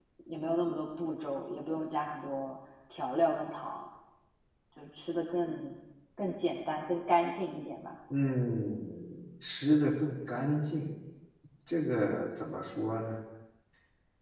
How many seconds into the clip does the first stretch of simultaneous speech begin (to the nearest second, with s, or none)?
none